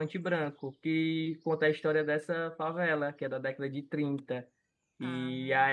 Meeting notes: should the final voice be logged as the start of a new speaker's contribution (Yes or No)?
No